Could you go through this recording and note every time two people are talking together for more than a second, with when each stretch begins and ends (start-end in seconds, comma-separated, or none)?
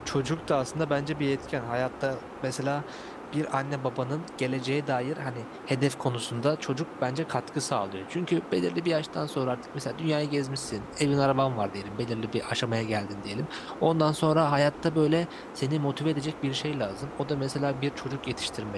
none